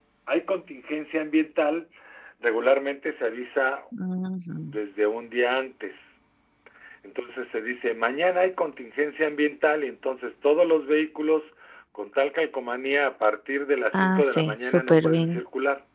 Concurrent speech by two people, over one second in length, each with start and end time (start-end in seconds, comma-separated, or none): 13.9-15.4